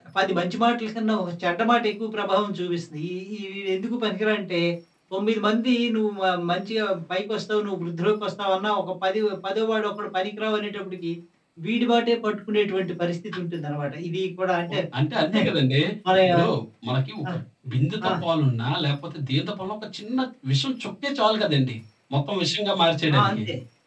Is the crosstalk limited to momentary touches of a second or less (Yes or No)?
Yes